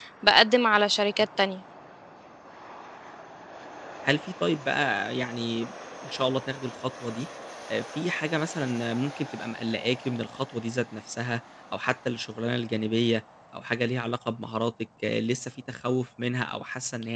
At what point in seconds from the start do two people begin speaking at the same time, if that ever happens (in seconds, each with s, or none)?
none